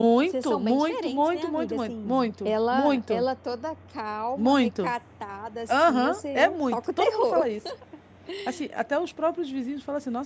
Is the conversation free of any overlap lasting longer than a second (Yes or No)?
No